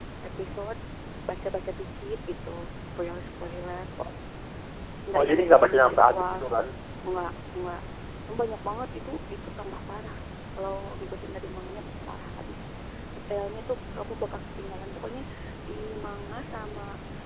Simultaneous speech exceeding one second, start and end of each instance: 5.1-6.4

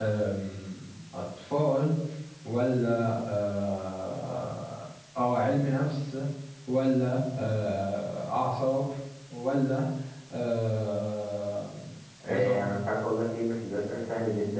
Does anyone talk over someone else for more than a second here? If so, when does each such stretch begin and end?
none

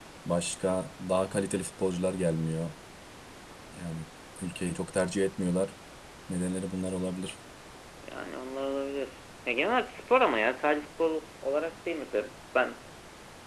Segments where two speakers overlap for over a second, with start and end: none

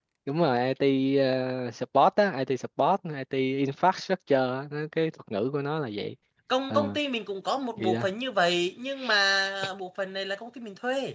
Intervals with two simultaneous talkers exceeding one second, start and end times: none

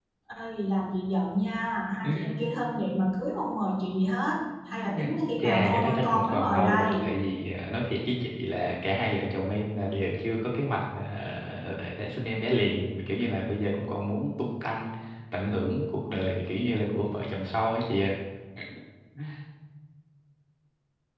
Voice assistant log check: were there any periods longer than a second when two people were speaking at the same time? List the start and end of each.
5.4-7.1

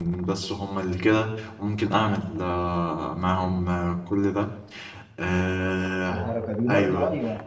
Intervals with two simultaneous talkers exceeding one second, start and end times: none

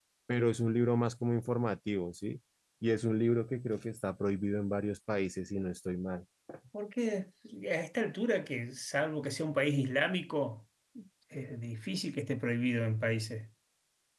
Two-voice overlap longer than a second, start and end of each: none

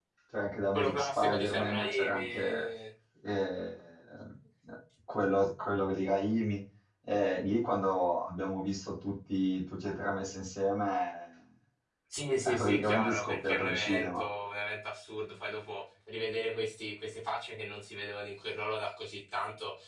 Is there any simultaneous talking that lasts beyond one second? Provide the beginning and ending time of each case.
0.7-2.7, 12.4-14.3

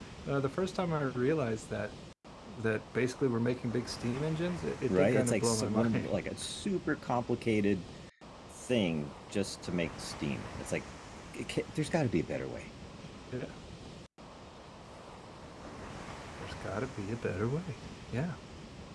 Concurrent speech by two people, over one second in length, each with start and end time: 4.9-6.2

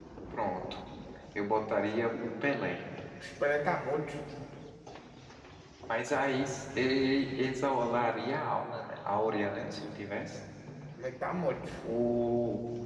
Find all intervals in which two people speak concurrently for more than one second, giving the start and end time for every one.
none

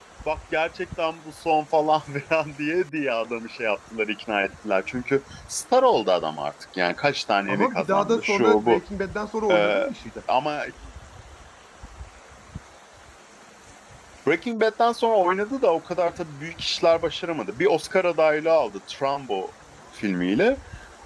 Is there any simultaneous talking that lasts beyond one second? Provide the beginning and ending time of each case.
7.5-8.8

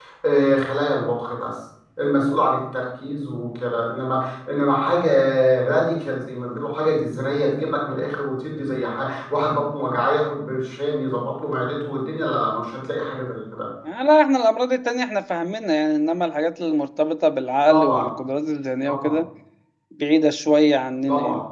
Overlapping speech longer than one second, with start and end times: none

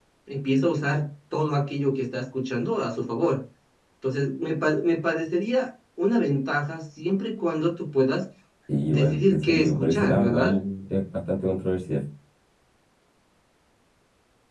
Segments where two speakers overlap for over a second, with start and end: 8.9-10.5

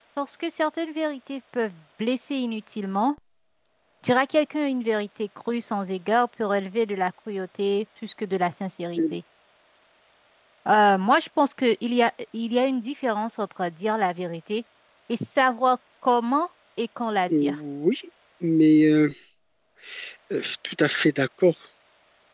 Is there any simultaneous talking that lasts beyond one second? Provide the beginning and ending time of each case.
none

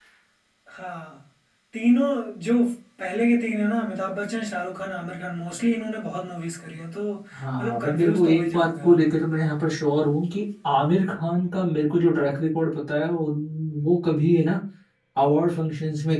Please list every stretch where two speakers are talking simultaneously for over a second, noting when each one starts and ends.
7.3-9.1

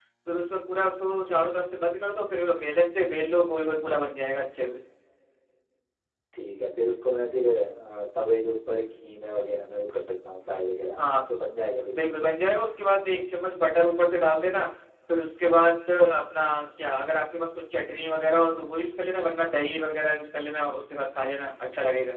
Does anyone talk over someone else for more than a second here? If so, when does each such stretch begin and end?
none

